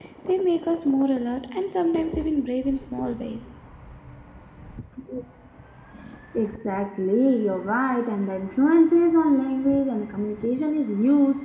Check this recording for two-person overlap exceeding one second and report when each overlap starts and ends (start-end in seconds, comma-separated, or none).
none